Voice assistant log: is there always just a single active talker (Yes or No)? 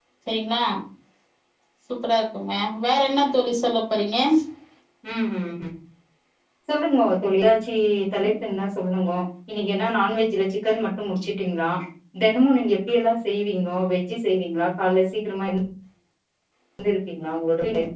Yes